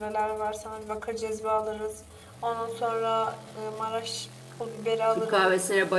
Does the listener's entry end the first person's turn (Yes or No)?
Yes